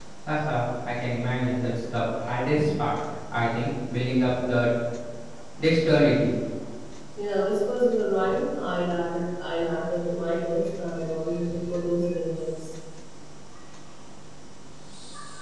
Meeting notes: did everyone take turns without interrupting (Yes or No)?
Yes